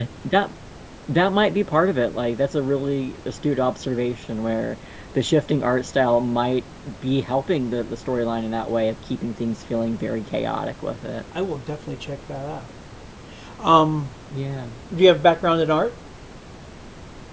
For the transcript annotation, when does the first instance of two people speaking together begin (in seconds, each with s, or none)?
none